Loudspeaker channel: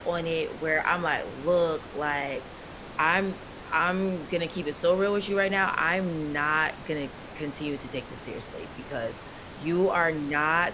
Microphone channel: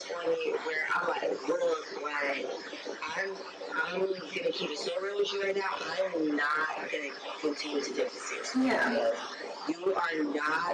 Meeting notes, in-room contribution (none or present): present